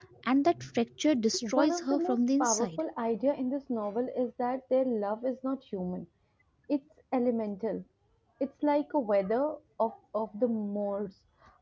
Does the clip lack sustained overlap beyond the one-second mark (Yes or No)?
No